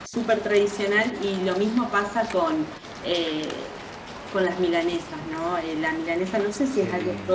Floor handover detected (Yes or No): No